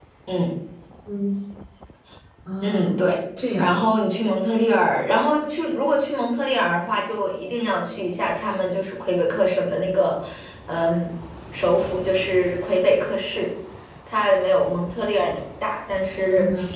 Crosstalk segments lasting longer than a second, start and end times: none

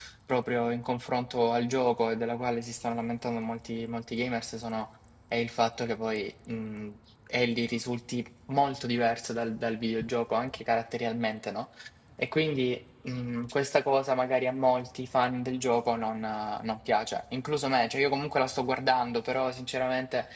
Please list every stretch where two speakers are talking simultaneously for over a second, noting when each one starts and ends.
none

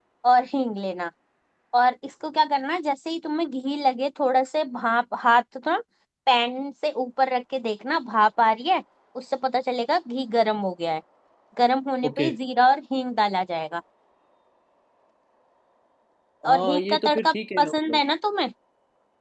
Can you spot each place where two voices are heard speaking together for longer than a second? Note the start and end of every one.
16.5-18.0

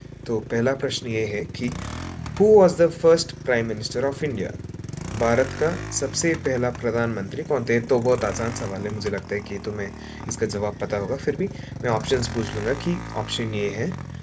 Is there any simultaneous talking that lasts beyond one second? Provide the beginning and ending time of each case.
none

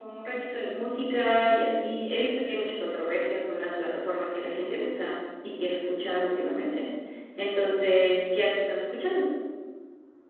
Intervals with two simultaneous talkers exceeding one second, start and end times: none

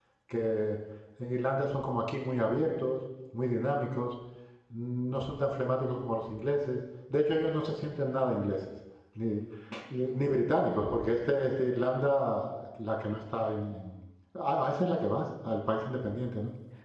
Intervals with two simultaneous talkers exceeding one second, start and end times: none

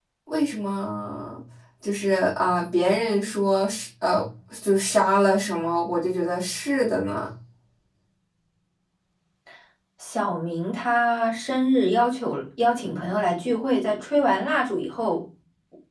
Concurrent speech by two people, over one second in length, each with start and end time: none

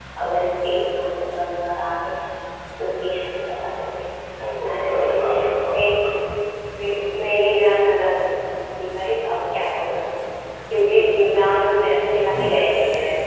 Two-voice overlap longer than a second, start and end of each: 4.7-5.9

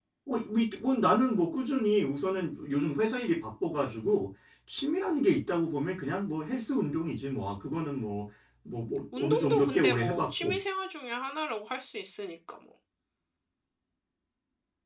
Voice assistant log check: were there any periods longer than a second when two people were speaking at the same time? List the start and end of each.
9.2-10.6

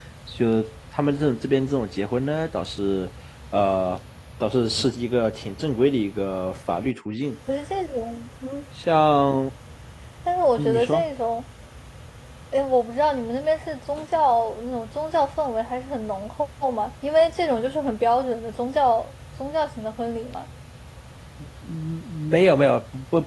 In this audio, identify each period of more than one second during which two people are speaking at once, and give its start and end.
none

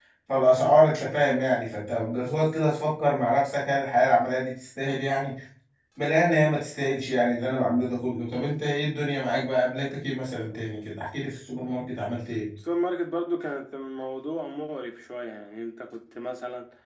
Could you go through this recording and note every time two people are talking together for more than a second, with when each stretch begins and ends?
none

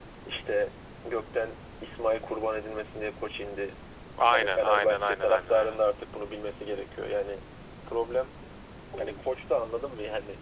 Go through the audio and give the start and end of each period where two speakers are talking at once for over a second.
4.3-5.8

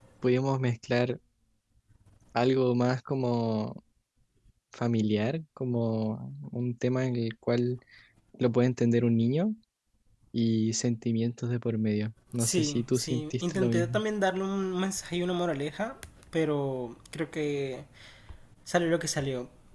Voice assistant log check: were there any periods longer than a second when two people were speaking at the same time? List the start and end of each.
12.4-14.0

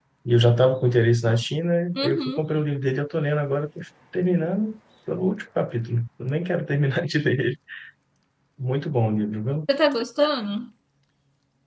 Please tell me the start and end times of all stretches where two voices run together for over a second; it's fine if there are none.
none

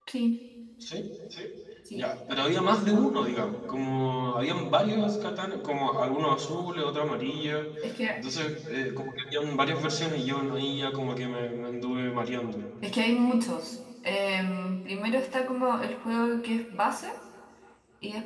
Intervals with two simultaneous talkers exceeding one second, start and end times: none

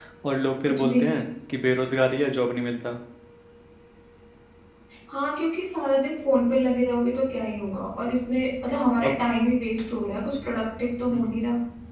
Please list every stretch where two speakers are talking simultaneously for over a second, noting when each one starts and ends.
none

